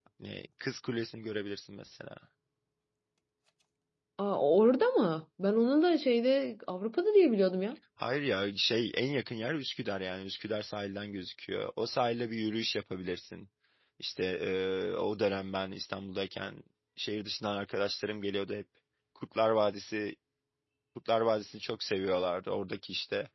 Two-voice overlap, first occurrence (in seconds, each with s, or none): none